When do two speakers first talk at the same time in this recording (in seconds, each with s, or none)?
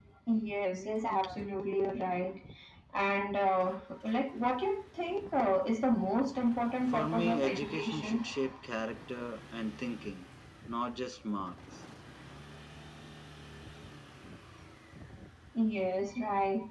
6.9 s